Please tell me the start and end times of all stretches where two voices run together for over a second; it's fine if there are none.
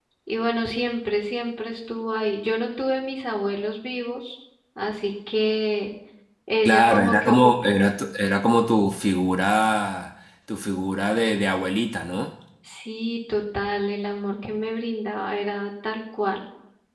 6.7-7.9

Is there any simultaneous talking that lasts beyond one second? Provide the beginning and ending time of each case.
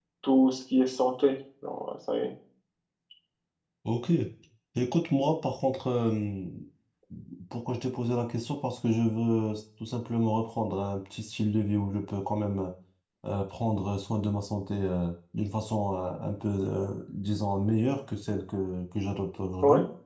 none

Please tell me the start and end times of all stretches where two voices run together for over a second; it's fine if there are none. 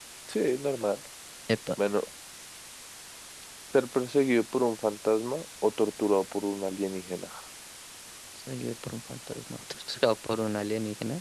none

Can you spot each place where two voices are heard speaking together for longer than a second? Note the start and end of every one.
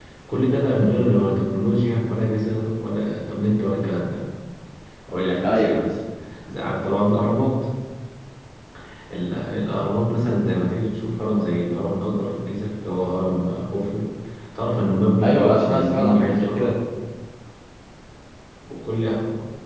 15.2-16.7

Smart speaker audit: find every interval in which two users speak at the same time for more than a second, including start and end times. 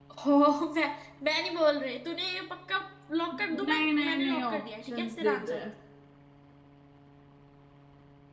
3.3-5.6

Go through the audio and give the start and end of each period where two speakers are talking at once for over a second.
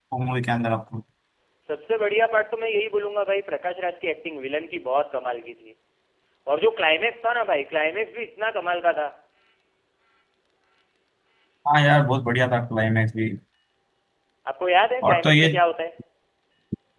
none

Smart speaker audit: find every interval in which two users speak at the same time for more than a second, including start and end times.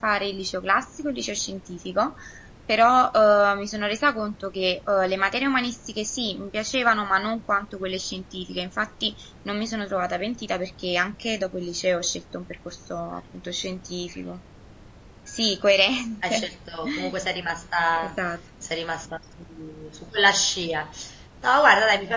none

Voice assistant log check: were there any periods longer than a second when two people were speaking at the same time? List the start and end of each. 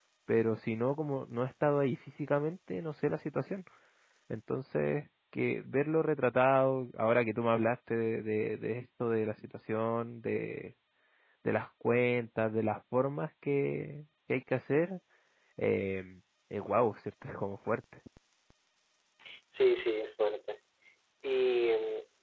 none

